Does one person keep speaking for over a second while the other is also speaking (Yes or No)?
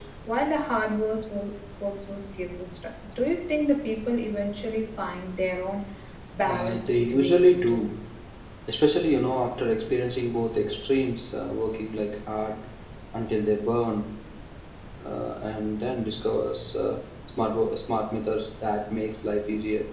Yes